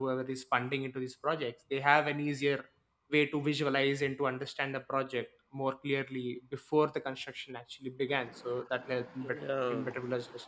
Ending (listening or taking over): listening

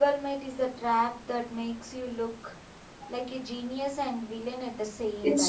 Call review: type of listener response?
taking over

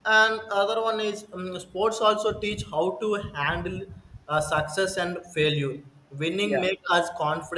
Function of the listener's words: listening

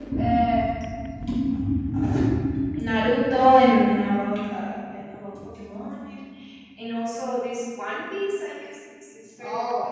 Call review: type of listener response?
taking over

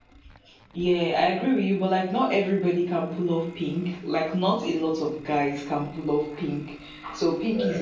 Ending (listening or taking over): listening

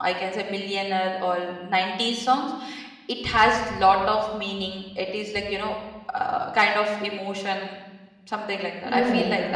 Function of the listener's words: taking over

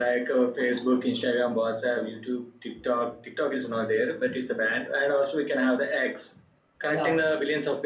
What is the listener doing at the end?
listening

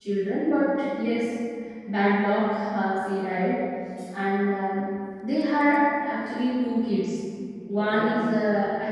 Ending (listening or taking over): listening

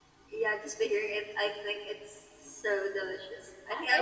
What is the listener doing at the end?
taking over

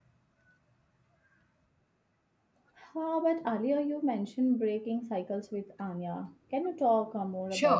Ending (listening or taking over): taking over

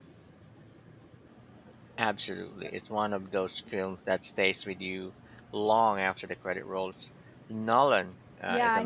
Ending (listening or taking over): taking over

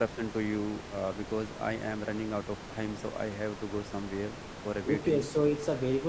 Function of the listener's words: taking over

